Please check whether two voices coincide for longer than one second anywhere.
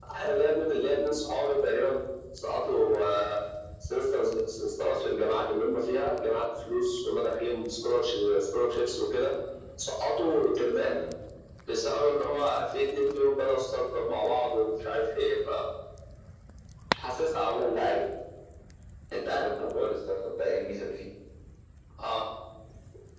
No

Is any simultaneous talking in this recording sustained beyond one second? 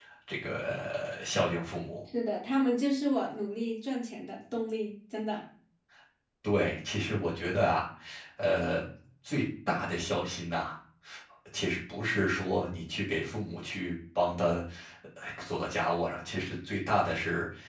No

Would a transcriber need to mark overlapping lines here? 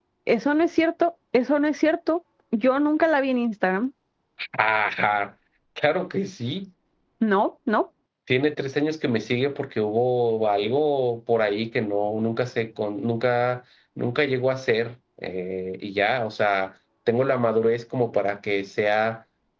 No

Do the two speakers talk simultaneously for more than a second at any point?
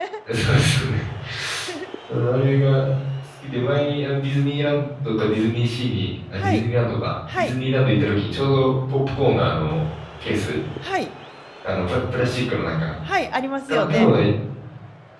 No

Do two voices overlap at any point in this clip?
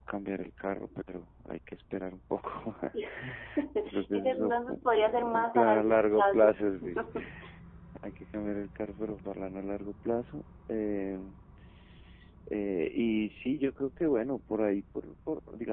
Yes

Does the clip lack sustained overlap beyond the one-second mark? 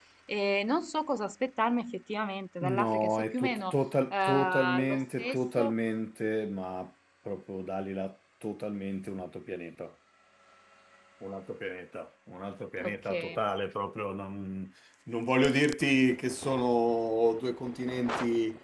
No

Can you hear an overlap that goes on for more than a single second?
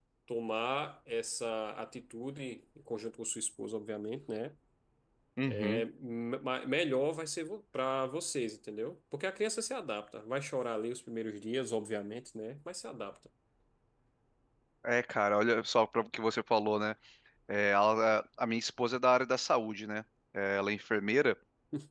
No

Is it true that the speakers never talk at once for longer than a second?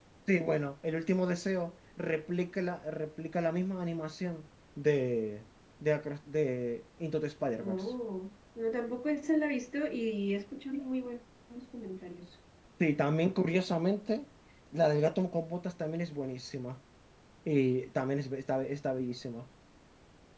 Yes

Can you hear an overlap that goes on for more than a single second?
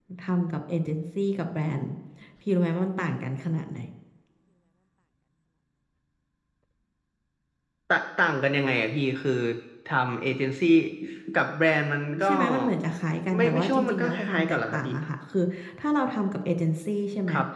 Yes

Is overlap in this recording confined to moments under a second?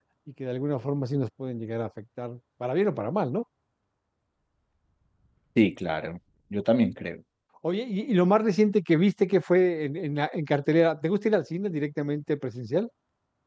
Yes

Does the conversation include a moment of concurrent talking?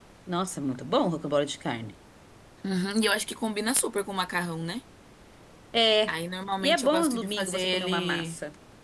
Yes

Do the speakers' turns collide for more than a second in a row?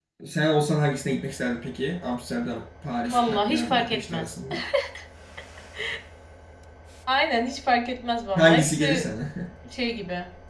Yes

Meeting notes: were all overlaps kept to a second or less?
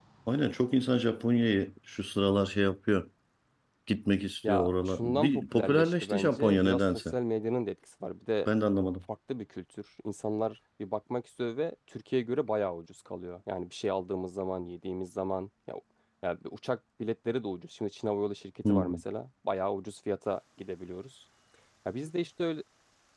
No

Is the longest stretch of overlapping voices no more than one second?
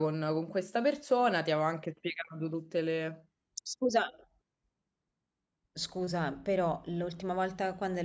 Yes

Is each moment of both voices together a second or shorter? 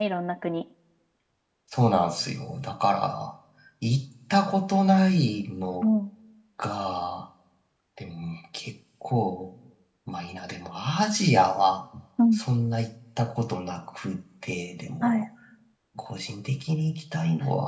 Yes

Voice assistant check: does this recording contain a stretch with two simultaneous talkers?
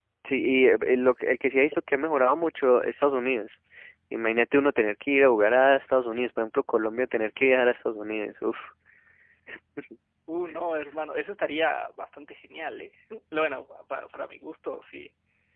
No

